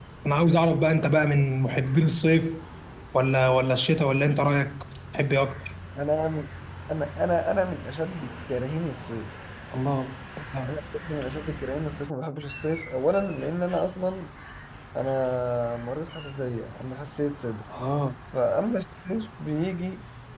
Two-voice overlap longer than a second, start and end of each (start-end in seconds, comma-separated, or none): none